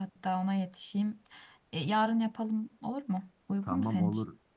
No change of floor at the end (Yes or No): No